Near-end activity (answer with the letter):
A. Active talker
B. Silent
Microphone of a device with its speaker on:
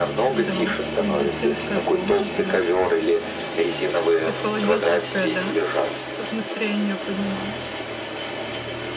A